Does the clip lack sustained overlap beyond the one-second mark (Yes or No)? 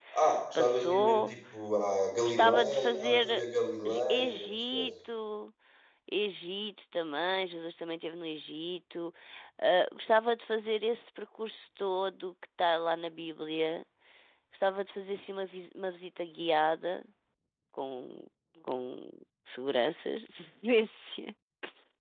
No